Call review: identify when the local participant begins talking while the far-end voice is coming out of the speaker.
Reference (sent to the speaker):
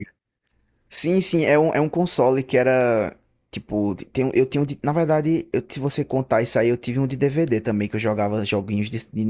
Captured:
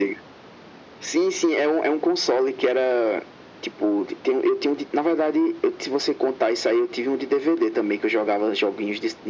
none

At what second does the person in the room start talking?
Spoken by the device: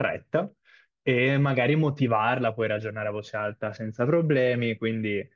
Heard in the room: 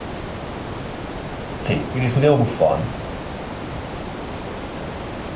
1.6 s

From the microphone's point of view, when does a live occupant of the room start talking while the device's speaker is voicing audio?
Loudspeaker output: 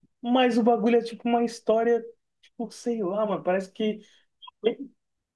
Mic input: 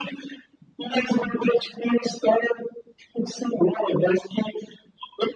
none

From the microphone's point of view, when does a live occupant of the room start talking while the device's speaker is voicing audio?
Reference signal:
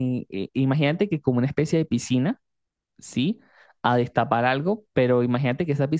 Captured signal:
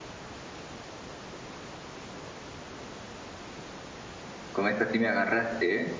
4.5 s

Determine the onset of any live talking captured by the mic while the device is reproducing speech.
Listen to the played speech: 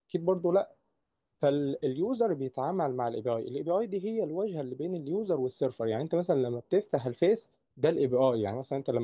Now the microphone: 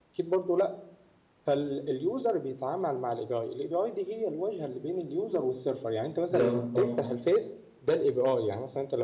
6.3 s

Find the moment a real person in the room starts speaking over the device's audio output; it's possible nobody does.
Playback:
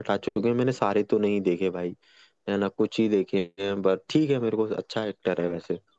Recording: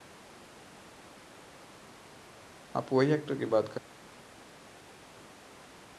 2.8 s

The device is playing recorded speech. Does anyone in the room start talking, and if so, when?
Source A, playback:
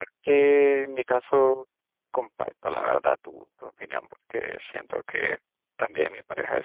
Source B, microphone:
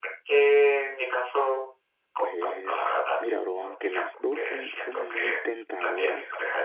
2.2 s

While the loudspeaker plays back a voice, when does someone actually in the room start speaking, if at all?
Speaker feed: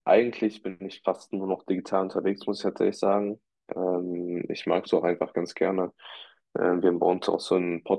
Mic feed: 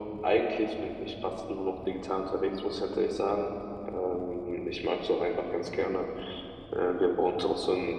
none

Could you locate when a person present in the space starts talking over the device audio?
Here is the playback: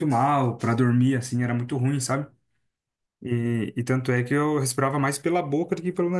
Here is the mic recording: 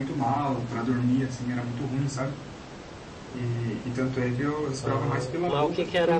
4.8 s

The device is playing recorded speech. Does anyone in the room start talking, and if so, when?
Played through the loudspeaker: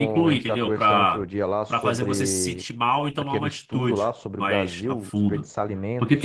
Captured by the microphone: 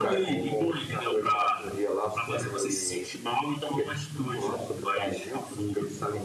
none

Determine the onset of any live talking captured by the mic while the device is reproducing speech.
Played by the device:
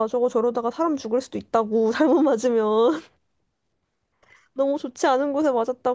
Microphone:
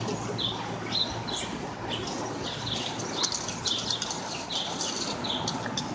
none

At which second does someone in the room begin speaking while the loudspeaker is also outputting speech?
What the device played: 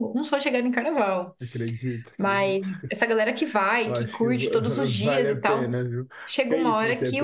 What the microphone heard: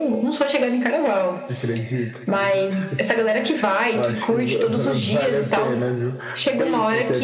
none

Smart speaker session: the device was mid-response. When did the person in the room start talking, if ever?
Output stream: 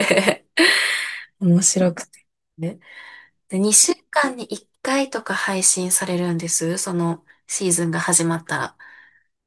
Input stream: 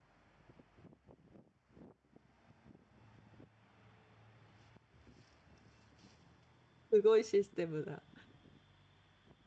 6.9 s

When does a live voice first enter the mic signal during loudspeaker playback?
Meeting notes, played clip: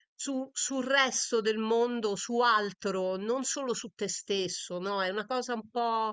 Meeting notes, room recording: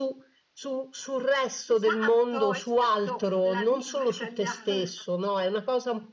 1.6 s

